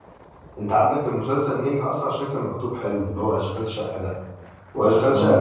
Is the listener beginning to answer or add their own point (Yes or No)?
No